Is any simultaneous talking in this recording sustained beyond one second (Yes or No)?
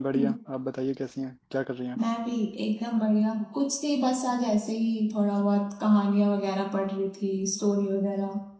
No